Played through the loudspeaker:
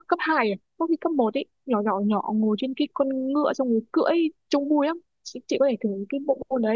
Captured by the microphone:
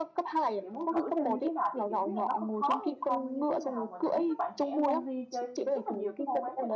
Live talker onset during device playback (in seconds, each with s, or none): 0.6 s